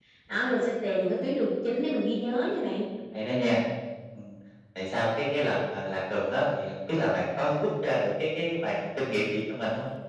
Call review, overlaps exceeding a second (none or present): none